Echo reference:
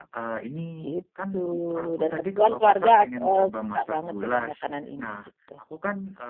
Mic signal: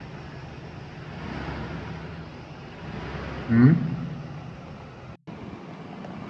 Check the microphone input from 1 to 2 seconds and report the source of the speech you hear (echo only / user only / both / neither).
neither